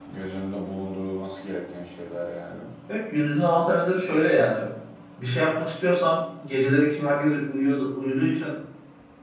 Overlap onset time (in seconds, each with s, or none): none